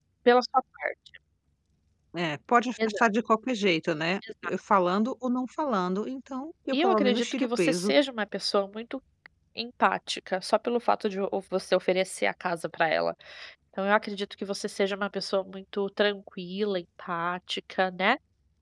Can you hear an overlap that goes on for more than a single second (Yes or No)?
Yes